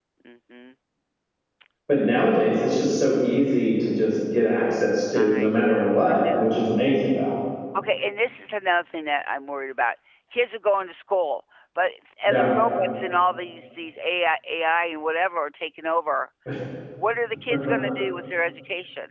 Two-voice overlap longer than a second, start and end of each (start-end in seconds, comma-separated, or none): 5.2-6.4